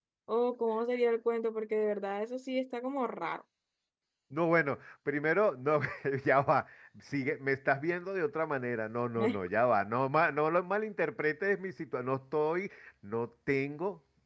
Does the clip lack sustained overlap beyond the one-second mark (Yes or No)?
Yes